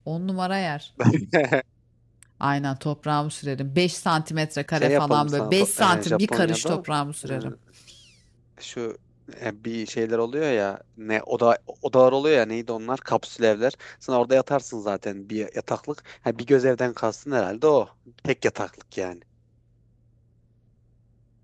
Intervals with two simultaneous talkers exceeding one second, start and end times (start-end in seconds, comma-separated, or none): 4.8-6.8